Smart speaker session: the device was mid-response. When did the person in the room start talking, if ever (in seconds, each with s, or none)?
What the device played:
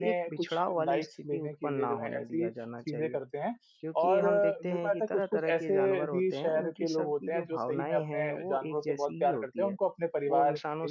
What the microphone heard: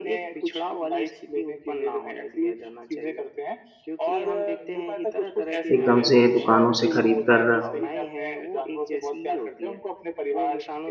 5.7 s